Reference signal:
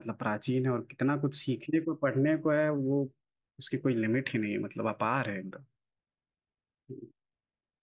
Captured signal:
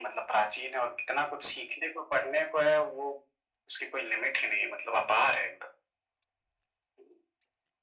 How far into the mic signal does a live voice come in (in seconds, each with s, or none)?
none